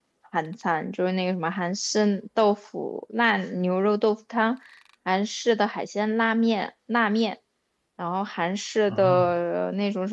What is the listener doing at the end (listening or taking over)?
listening